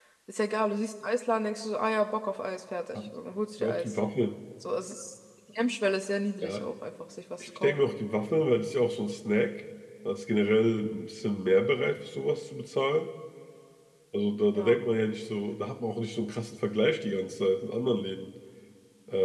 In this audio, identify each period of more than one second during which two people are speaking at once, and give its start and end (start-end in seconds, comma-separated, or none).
none